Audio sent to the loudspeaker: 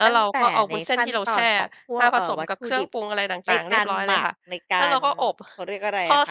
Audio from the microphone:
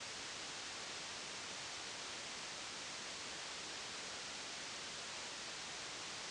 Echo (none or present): none